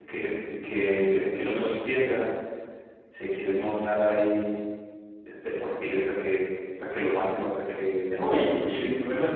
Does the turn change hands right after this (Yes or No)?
Yes